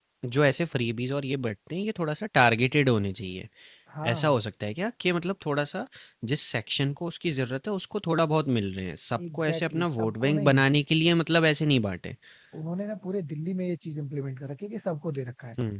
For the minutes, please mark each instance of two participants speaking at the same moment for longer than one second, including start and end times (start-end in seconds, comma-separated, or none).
9.3-10.6